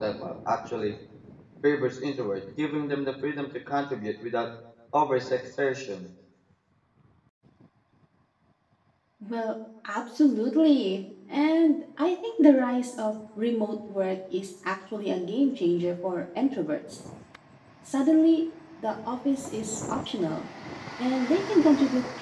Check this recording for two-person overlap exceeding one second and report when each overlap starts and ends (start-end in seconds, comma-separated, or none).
none